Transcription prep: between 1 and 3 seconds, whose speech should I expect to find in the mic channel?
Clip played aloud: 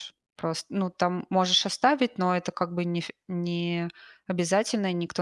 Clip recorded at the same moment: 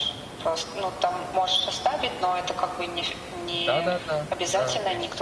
echo only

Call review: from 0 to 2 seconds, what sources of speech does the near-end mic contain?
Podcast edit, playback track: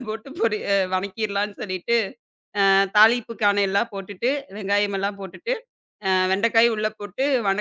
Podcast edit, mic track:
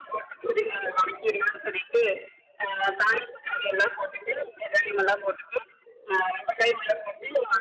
echo only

